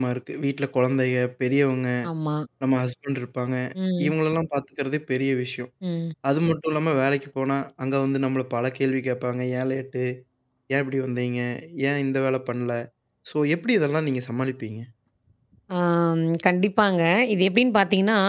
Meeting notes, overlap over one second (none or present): none